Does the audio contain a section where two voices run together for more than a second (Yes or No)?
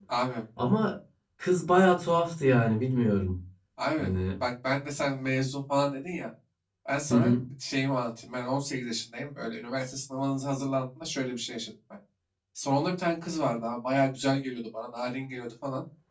No